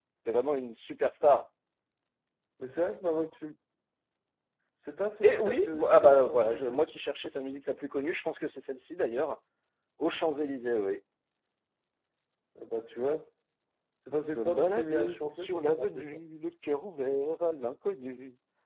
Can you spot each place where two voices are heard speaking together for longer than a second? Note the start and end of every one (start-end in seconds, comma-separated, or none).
5.2-6.8, 14.3-16.2